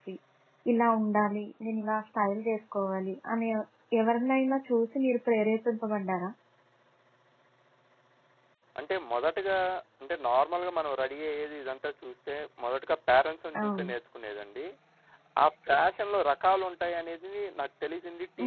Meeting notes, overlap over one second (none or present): none